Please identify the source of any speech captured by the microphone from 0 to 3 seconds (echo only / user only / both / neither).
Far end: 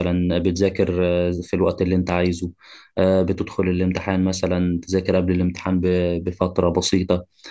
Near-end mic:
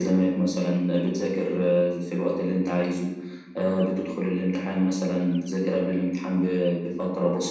echo only